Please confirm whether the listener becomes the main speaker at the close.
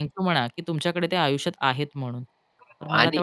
Yes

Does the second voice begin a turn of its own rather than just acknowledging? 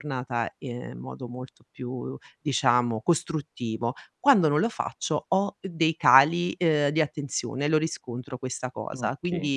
No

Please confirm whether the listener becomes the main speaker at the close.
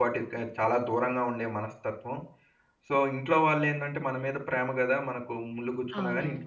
Yes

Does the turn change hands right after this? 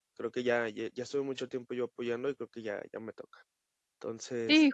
Yes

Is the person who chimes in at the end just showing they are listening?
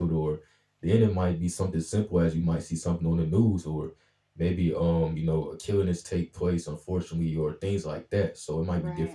Yes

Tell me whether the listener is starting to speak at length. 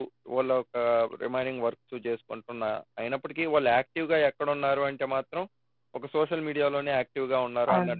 Yes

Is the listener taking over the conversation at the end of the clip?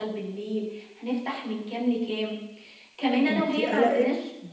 No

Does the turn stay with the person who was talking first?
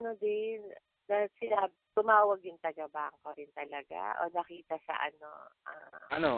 No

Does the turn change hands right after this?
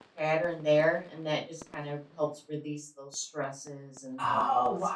Yes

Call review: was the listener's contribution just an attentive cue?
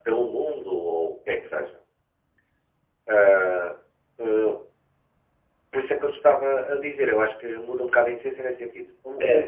Yes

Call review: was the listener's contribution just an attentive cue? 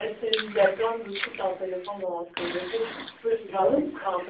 Yes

